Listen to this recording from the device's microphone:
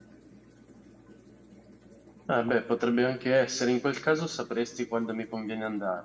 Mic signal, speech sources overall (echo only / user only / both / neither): user only